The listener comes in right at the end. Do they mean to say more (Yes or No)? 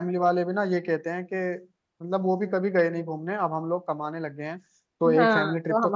Yes